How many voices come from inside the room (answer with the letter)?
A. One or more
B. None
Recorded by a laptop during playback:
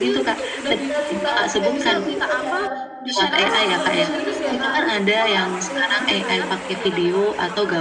A